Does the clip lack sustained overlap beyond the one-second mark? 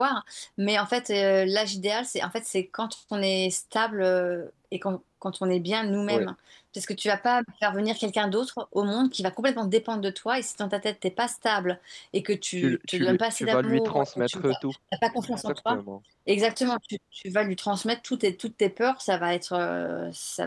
No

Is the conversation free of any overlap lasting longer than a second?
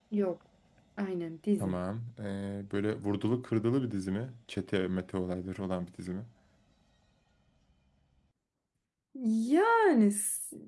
Yes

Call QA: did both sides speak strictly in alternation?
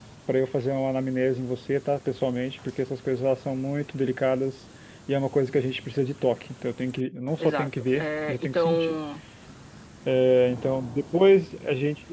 No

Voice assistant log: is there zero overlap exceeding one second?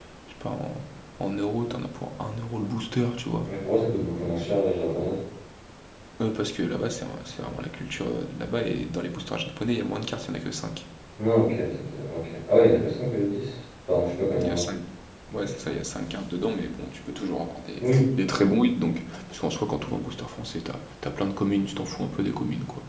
Yes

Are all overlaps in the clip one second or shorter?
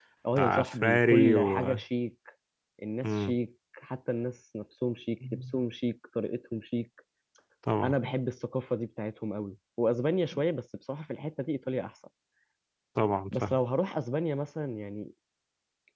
No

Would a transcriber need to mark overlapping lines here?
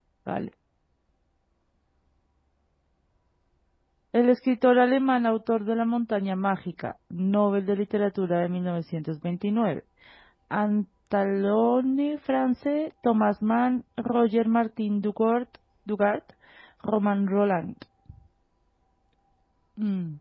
No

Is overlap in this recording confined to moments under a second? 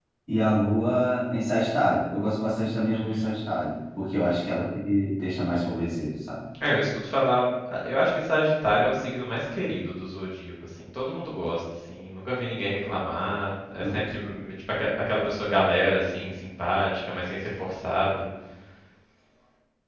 Yes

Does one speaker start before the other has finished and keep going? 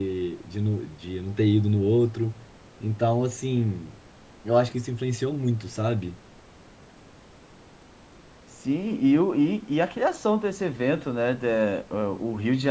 No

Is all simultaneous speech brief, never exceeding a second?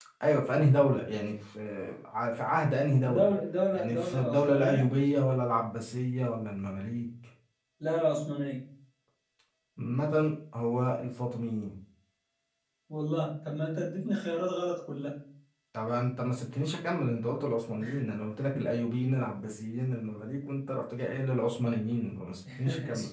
No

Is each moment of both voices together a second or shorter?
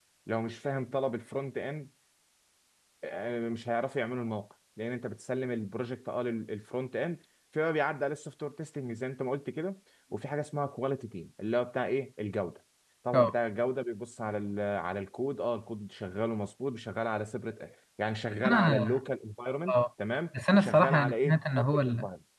No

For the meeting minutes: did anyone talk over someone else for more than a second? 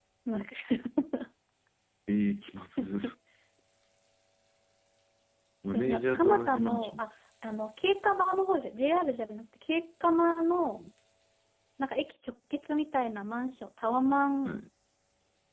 Yes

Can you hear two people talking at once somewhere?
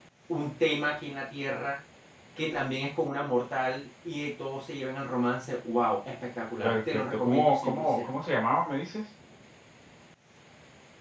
Yes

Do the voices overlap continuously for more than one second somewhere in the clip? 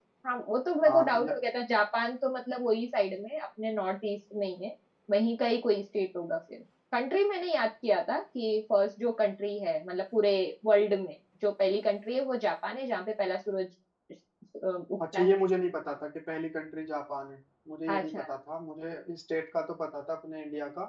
No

